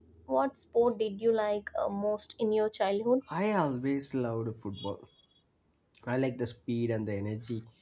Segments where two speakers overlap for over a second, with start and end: none

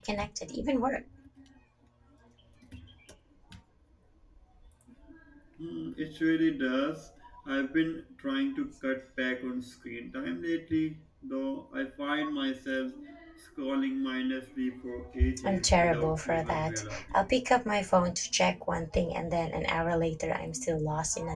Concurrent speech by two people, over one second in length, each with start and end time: 15.4-17.2

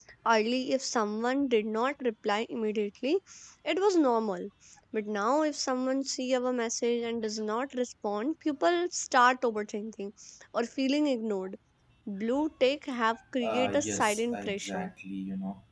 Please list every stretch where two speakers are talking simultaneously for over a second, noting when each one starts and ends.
13.4-14.9

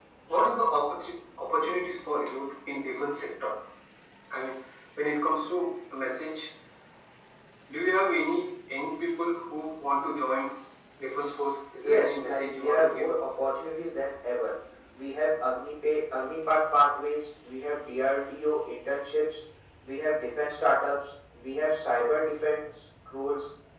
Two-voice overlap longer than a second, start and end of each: 11.8-13.1

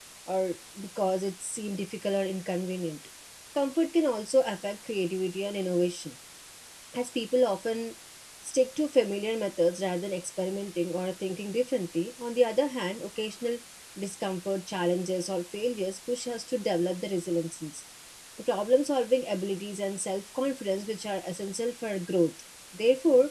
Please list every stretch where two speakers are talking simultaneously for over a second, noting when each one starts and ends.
none

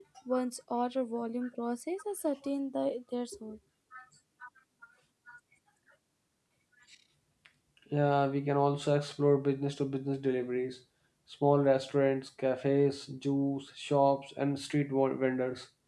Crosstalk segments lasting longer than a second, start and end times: none

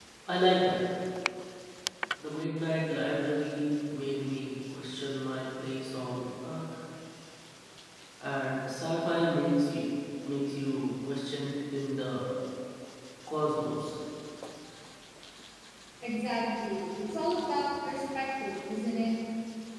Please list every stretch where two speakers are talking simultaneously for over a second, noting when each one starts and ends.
none

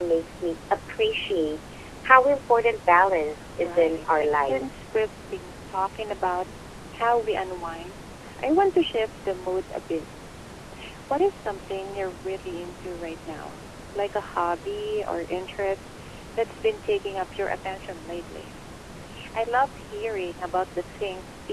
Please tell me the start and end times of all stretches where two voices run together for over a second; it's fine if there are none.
3.6-4.9

